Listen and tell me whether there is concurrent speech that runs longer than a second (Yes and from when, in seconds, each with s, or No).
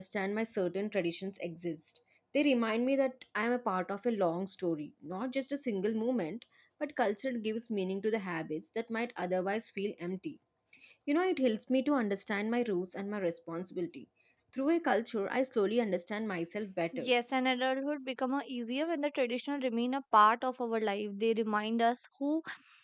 No